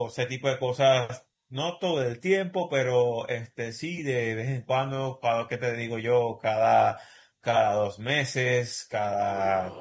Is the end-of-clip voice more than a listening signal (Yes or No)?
No